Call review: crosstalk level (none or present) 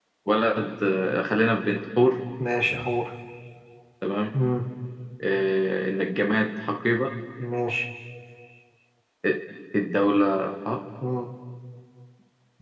none